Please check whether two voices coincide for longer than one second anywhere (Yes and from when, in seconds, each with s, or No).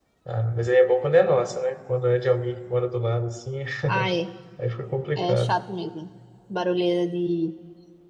No